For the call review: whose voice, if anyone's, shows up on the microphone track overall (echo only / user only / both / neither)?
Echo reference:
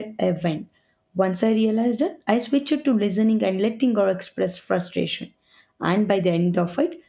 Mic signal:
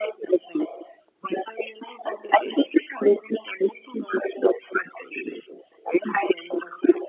both